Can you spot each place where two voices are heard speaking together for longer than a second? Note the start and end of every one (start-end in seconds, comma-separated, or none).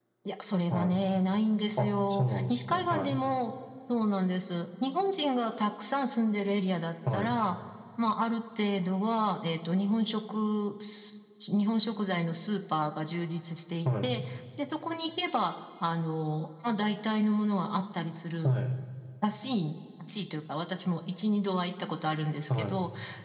1.8-3.2